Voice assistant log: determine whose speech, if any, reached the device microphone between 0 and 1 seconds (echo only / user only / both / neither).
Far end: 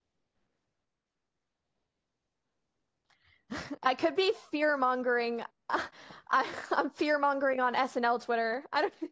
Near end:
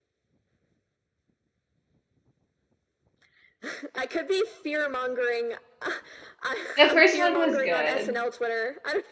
neither